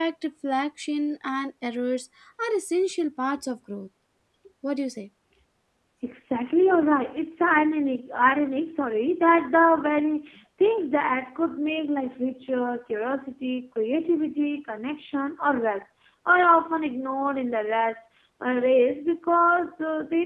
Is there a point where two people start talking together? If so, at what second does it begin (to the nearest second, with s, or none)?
none